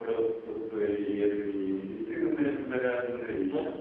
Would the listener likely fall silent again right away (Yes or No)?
Yes